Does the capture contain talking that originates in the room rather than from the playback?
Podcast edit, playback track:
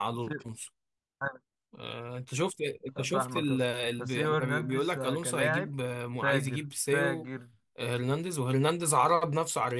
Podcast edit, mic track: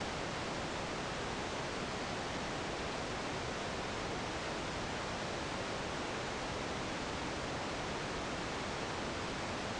No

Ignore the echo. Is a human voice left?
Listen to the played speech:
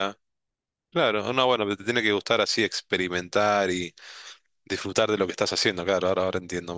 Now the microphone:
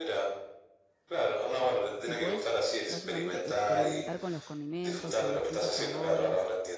Yes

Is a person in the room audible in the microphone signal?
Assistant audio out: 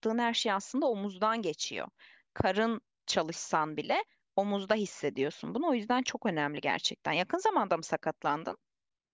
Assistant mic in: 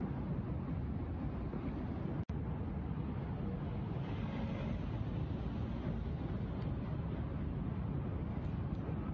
No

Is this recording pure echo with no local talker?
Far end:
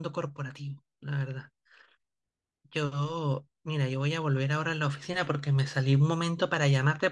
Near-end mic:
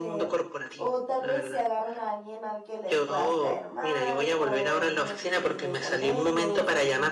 No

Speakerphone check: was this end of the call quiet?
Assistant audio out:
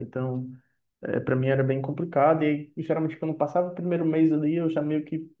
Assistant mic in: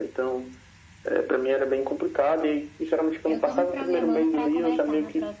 No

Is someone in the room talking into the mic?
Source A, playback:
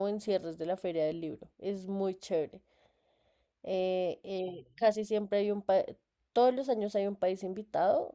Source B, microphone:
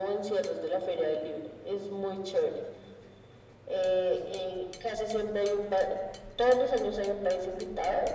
No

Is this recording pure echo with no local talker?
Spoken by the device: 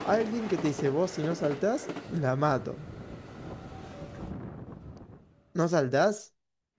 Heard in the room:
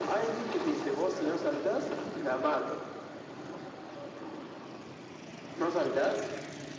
Yes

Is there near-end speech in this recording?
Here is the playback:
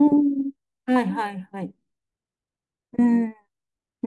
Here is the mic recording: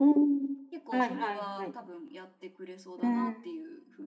Yes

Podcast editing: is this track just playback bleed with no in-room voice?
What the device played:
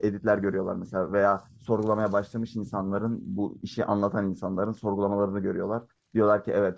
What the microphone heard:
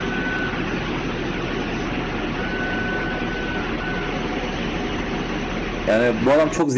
No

